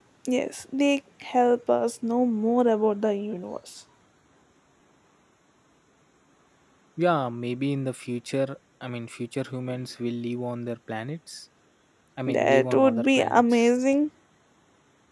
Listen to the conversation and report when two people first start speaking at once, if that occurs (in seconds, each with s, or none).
12.3 s